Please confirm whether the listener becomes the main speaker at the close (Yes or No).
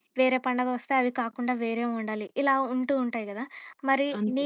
No